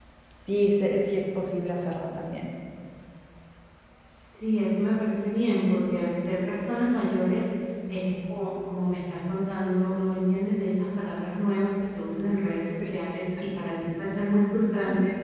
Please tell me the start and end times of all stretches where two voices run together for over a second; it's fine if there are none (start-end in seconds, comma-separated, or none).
none